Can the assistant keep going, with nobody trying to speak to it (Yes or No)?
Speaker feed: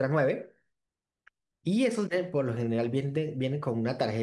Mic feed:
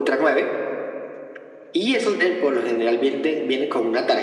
Yes